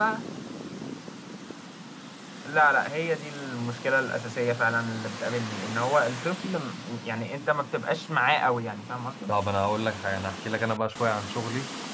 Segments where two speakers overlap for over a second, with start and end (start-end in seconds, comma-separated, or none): none